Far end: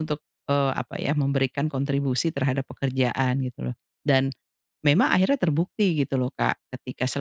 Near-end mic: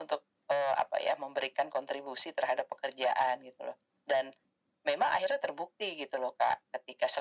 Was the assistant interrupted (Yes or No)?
No